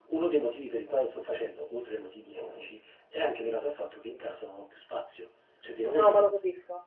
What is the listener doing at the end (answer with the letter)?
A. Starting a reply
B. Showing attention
A